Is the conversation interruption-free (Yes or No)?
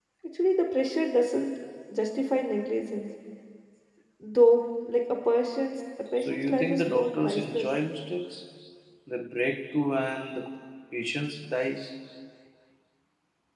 No